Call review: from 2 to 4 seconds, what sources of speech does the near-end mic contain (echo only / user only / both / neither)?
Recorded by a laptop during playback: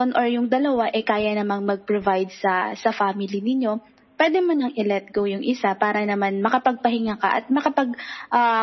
echo only